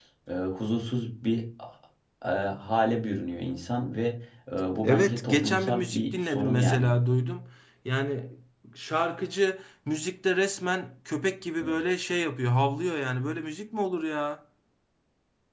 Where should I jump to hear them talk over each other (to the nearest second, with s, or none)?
5 s